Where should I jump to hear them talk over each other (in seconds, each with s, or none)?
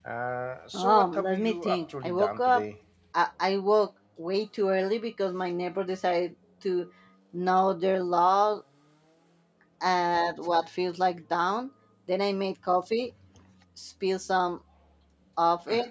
0.7 s